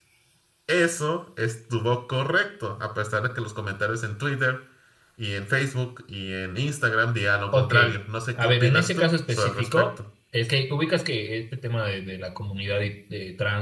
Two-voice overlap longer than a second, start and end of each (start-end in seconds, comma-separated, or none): 8.4-9.9